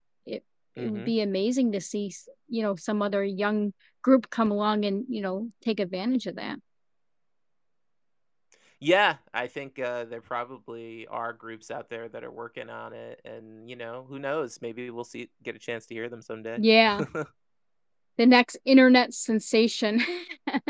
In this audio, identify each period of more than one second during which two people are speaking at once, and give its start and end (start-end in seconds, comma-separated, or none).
none